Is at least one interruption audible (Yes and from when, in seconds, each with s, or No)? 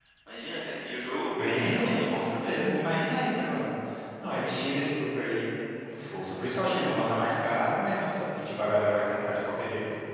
Yes, from 1.4 s